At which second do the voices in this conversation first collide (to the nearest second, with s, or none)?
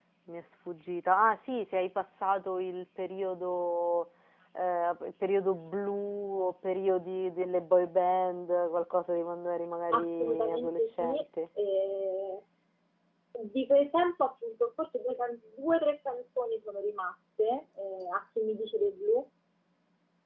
10 s